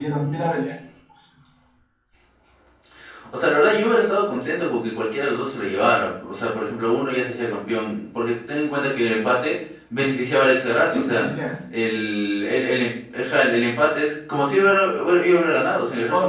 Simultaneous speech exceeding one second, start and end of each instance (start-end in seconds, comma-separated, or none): none